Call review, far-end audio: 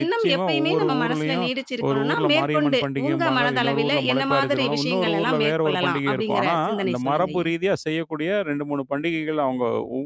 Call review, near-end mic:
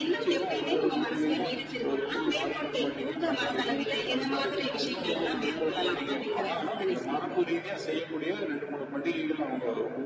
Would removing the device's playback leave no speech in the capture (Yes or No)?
Yes